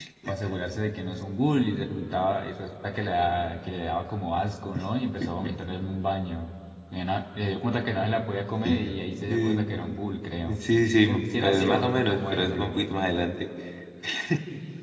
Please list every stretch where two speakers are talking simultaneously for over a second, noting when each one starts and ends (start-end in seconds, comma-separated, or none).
11.1-12.8